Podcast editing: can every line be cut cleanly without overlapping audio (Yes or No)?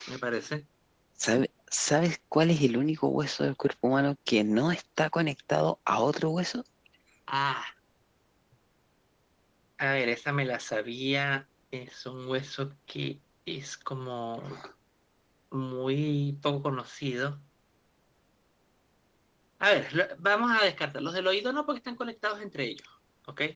Yes